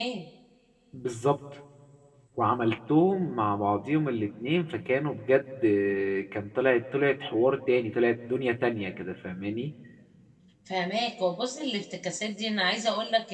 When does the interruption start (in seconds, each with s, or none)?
none